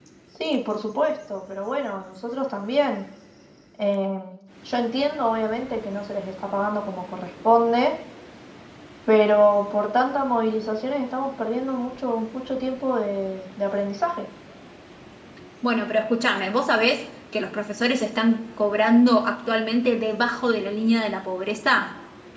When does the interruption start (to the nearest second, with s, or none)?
none